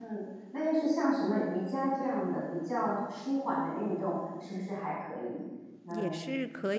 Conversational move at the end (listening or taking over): taking over